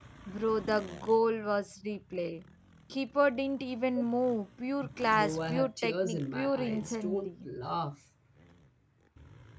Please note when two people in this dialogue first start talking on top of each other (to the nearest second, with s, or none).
5 s